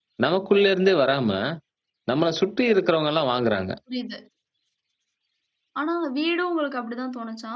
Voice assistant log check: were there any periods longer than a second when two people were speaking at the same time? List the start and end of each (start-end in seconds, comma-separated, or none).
none